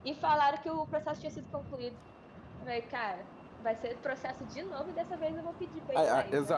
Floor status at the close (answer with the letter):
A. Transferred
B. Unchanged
A